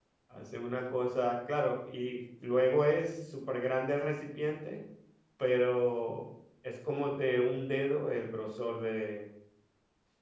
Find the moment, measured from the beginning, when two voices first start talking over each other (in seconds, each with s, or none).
none